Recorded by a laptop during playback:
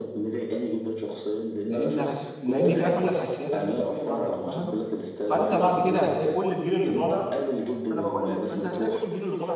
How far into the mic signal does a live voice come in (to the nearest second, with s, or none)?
2 s